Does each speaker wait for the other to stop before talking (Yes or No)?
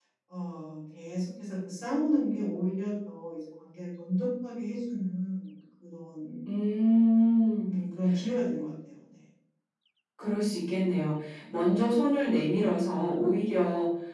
Yes